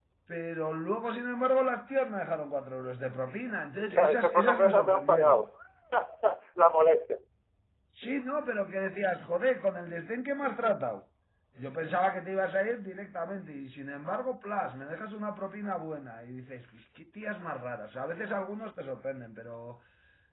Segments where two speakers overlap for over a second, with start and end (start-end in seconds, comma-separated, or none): 3.9-5.4